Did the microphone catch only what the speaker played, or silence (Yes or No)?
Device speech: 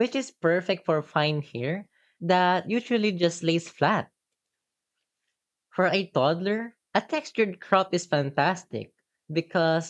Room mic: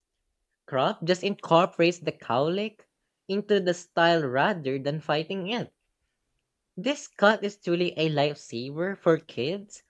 No